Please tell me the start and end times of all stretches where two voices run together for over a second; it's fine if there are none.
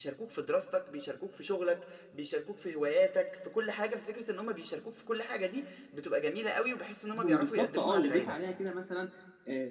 7.1-8.3

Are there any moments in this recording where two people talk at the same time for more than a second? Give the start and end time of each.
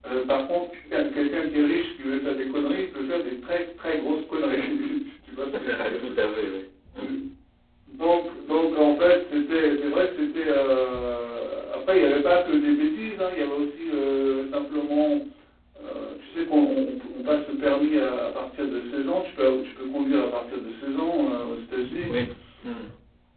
none

